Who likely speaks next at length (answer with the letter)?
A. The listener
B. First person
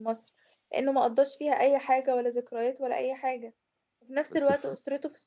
B